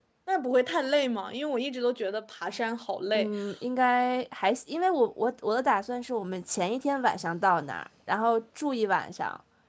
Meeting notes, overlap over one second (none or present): none